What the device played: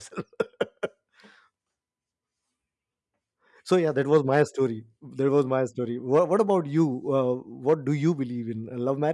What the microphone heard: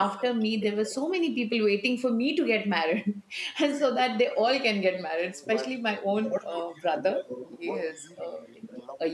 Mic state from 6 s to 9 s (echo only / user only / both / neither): both